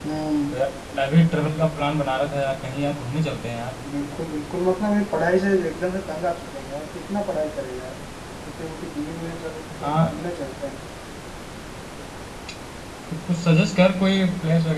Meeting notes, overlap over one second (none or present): none